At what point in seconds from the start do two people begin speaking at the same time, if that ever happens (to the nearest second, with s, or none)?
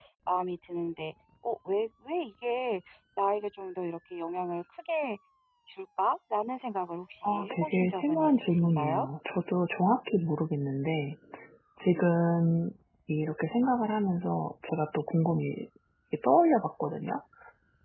7 s